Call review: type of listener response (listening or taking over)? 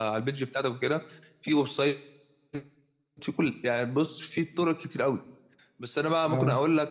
listening